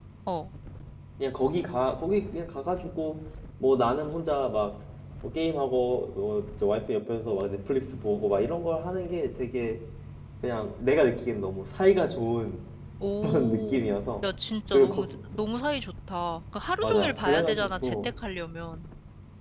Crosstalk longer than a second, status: present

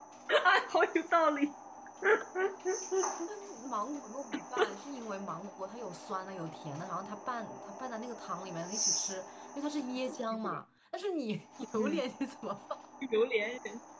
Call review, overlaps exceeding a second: none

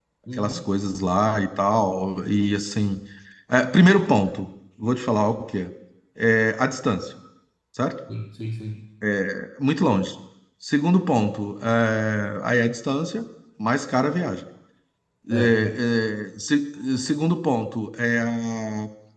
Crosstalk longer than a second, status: none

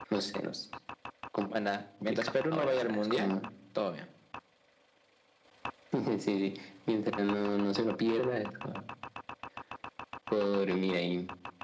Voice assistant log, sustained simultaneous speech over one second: present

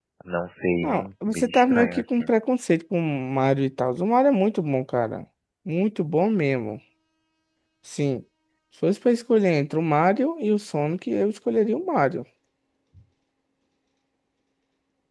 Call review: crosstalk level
present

